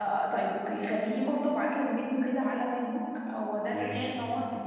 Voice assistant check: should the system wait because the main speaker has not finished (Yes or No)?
Yes